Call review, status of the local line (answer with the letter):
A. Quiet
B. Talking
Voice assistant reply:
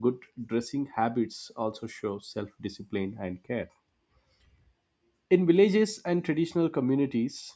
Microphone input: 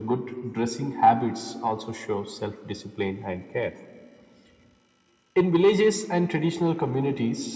A